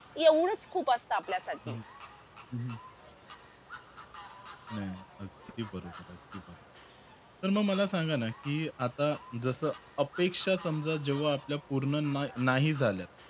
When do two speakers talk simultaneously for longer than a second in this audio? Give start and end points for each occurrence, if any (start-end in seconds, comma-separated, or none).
none